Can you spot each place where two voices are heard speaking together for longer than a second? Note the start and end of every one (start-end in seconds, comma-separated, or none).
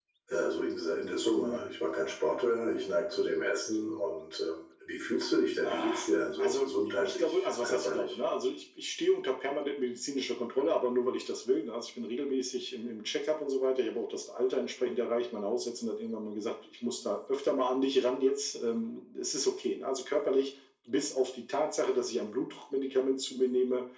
6.4-8.1